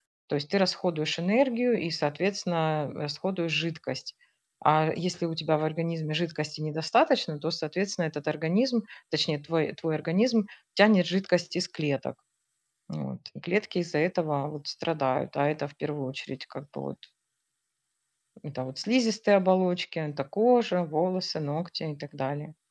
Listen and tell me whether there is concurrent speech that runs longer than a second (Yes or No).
No